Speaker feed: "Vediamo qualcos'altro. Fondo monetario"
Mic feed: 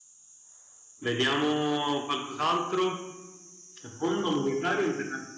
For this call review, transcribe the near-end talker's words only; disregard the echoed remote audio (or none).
none